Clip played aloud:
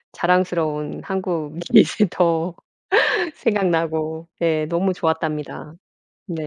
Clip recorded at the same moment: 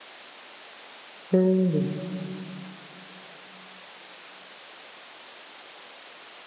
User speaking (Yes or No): Yes